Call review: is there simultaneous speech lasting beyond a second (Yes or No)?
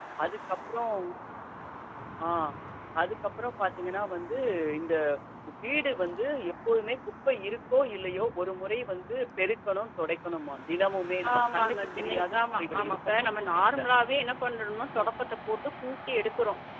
Yes